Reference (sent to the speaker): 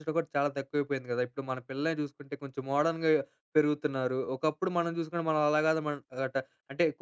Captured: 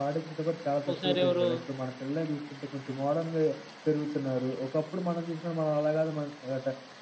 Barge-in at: 0.9 s

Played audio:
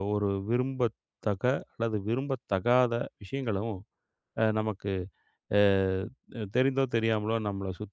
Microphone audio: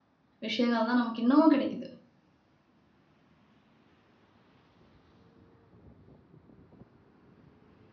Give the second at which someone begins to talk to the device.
0.5 s

